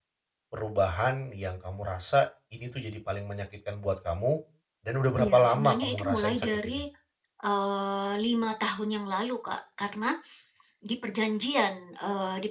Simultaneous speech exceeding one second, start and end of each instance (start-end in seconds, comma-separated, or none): 5.2-6.8